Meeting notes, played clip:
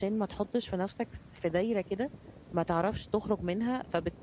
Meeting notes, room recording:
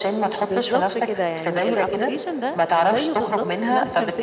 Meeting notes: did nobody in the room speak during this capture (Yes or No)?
No